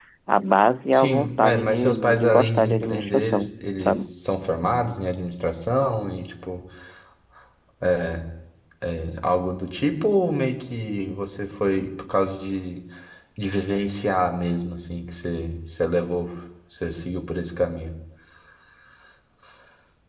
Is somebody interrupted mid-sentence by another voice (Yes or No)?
Yes